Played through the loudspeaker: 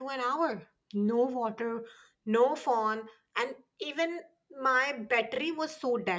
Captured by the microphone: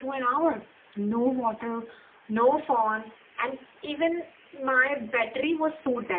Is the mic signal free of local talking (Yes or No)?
Yes